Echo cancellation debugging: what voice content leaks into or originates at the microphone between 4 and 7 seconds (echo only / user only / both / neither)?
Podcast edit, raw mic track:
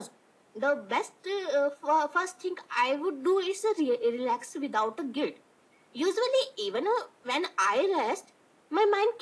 echo only